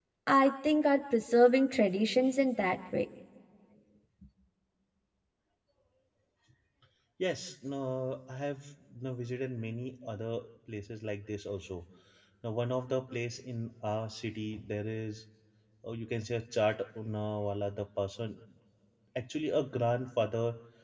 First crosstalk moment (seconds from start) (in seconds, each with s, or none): none